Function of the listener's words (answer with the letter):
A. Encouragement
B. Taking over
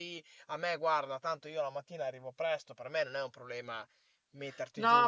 B